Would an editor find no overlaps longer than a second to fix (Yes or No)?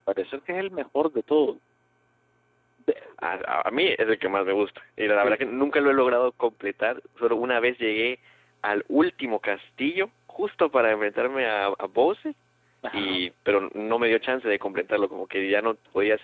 Yes